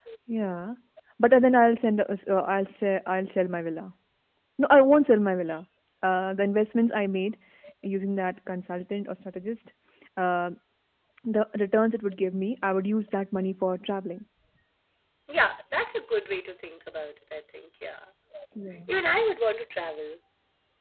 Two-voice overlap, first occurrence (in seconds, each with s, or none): none